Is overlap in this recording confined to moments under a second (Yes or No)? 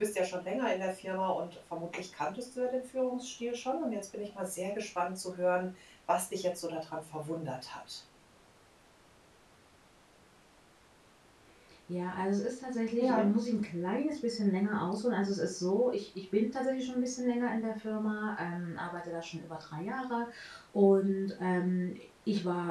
Yes